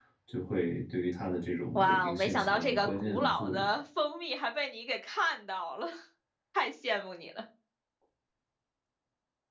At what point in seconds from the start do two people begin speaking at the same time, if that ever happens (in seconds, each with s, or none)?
1.8 s